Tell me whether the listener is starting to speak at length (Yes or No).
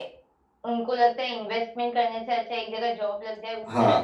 No